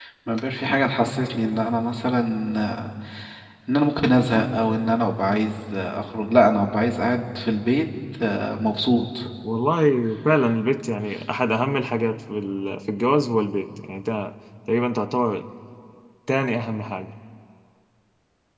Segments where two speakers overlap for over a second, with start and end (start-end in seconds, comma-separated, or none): none